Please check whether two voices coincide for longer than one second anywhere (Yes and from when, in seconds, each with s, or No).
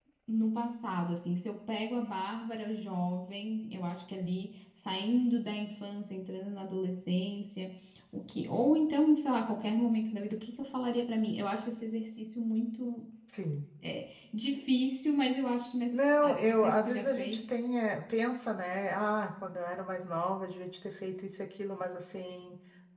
Yes, from 15.9 s